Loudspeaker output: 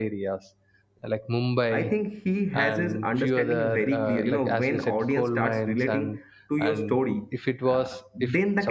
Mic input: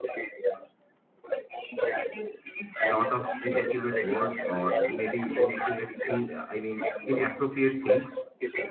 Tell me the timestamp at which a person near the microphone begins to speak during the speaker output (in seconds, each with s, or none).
2.8 s